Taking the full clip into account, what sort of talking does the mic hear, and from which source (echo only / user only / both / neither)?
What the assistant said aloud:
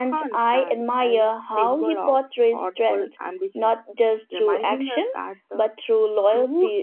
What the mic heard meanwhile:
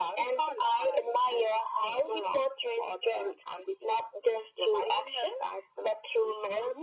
echo only